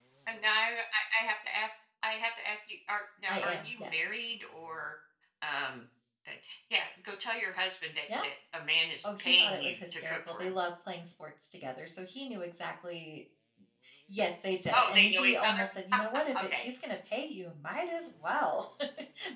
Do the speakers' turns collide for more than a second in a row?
Yes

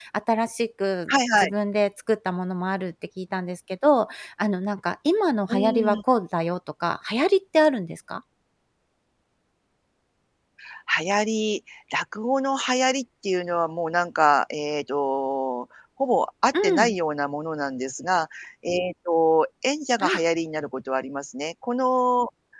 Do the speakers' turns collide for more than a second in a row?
No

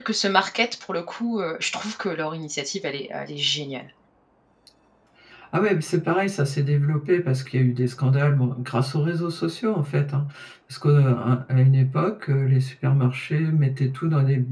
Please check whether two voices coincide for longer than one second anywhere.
No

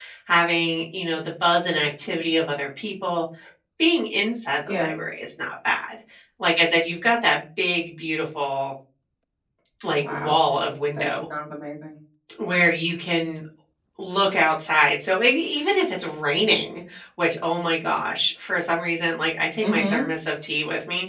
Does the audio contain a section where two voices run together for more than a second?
No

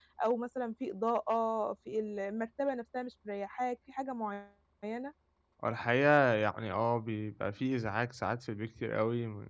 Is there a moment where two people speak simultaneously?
No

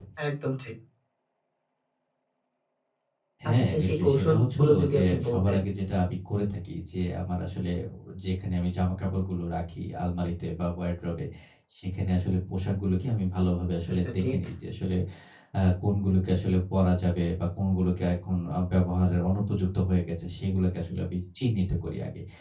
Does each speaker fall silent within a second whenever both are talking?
No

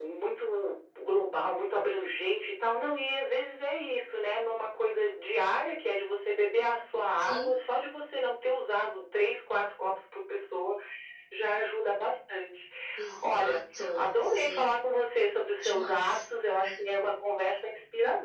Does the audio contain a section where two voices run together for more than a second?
Yes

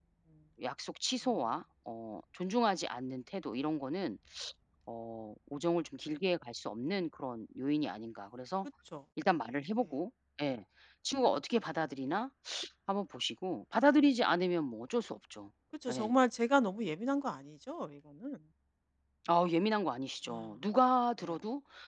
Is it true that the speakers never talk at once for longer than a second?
Yes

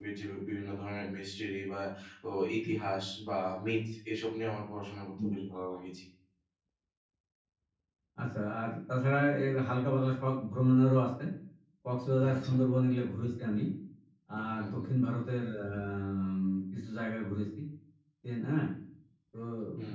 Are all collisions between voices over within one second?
Yes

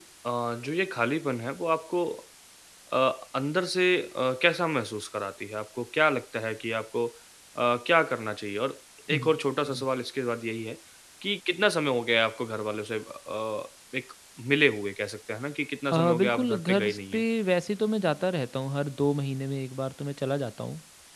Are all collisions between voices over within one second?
No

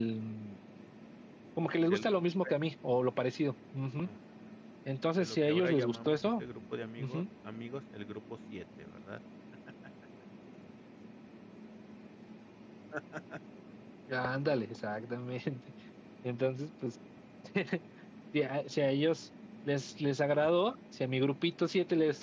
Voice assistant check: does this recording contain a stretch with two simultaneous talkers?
Yes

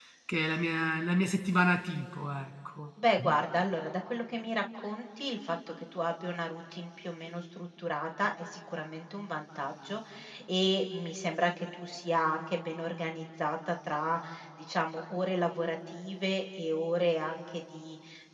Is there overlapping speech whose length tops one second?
No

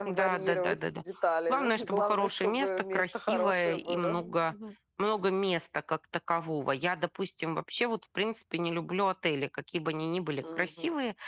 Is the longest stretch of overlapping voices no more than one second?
No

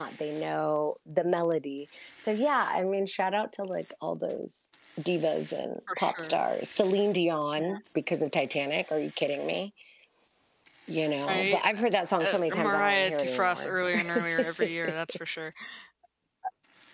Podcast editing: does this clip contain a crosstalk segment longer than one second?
Yes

